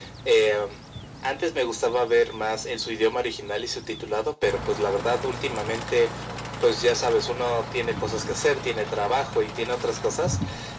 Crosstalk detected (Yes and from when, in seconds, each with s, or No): No